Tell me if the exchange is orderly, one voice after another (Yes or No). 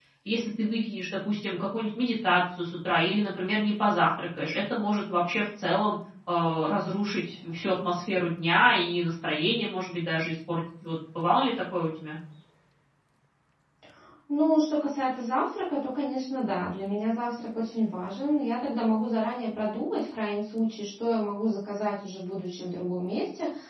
Yes